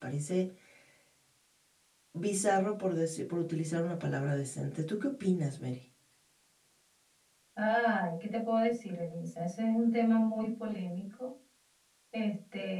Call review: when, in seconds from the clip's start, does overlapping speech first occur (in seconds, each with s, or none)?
none